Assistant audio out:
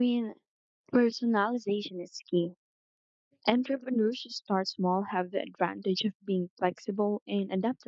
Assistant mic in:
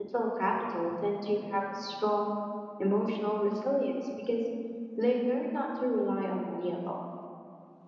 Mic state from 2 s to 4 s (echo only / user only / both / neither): user only